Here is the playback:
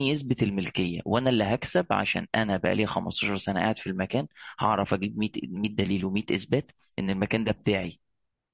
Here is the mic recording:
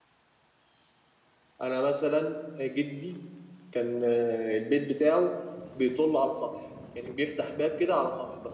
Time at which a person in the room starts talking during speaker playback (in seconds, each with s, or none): 1.6 s